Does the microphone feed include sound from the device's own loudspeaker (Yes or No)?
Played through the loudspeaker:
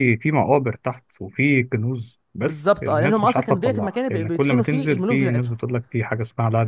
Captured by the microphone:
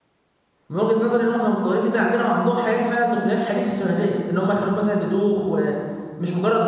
No